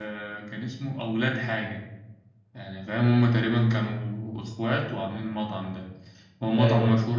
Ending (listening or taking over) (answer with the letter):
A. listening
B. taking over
A